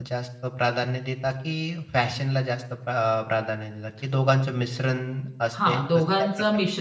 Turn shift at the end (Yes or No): Yes